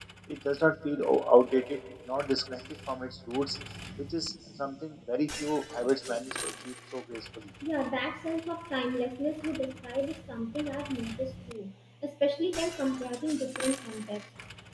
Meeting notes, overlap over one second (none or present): none